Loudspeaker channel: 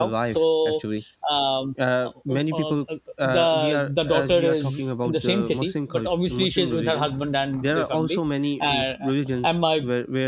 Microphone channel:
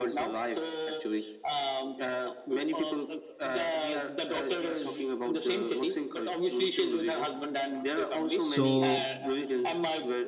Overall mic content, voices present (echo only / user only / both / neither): both